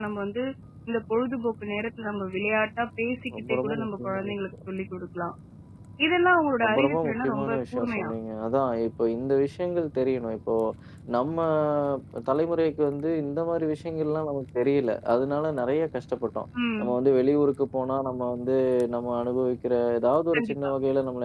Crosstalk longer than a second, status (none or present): present